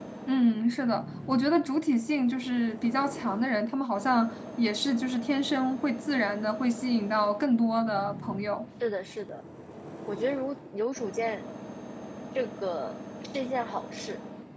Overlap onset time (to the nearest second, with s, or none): none